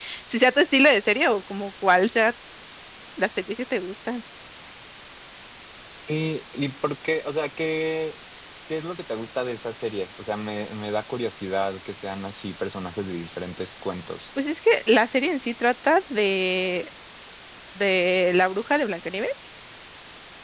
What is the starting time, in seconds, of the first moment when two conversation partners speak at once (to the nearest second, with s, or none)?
none